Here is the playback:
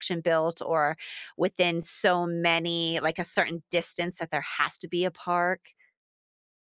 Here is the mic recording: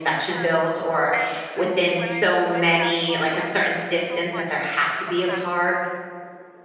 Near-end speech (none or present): present